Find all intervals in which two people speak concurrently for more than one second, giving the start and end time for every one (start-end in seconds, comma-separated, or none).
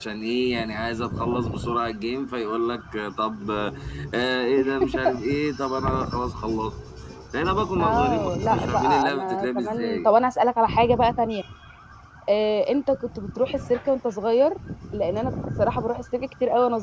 7.8-10.1